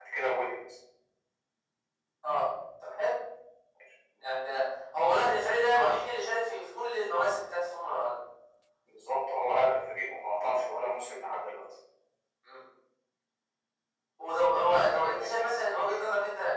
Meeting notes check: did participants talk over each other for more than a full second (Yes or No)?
Yes